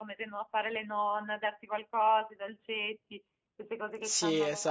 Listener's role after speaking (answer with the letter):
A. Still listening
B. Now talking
B